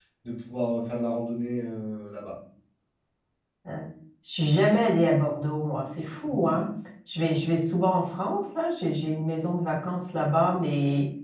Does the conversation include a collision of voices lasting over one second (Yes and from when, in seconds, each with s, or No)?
No